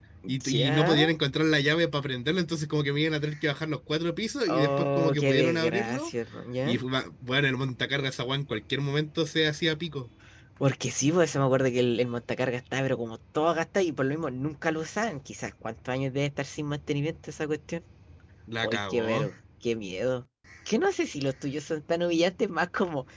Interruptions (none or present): present